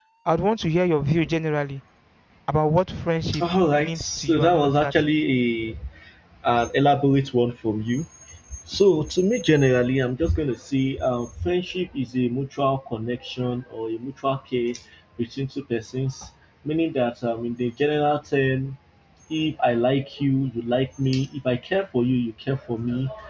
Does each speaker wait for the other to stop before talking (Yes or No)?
No